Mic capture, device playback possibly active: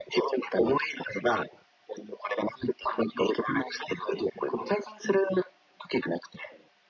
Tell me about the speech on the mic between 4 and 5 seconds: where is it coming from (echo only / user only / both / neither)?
echo only